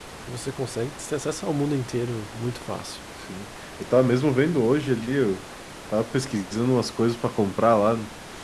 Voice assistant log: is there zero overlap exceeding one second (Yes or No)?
Yes